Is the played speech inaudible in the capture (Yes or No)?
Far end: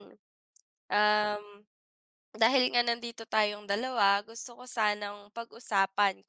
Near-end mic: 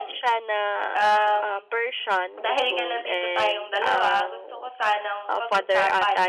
No